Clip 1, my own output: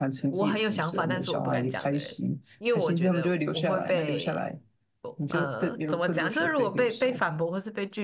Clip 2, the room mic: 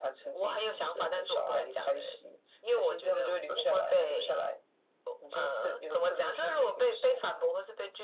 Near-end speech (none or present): none